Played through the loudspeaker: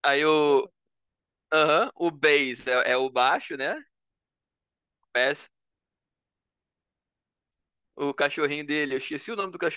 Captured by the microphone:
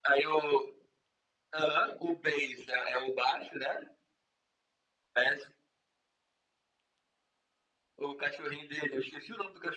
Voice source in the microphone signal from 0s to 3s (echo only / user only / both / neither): echo only